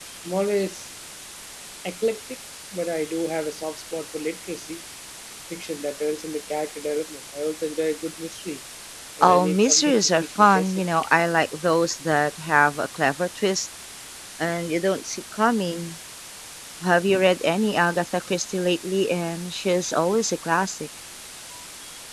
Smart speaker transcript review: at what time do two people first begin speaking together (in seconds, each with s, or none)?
9.2 s